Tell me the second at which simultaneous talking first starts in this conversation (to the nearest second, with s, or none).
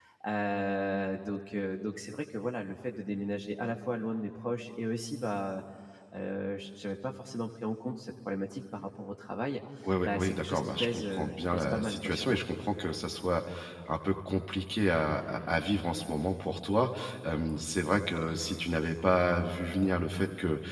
10 s